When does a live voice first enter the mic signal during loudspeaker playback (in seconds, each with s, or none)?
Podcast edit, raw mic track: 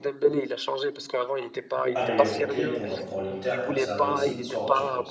1.9 s